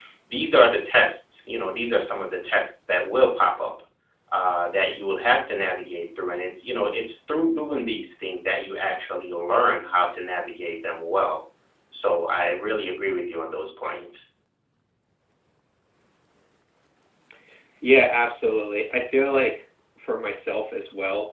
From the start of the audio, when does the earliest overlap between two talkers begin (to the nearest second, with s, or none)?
none